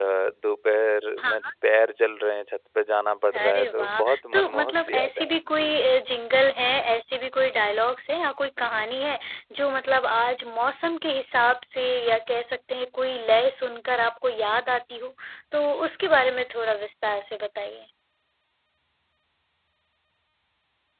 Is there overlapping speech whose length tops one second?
Yes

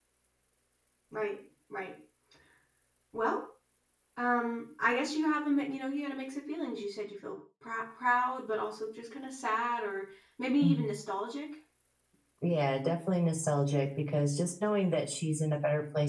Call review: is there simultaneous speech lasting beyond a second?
No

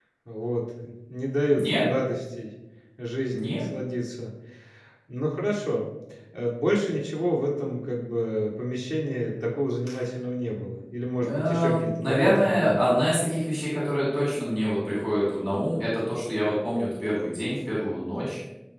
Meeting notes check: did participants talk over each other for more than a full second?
Yes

